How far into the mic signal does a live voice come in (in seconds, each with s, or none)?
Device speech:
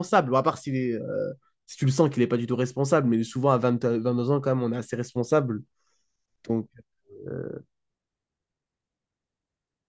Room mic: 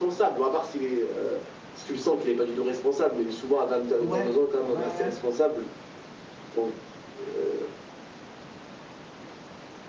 4.0 s